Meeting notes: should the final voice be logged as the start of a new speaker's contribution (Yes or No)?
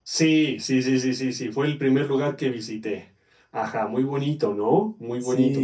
Yes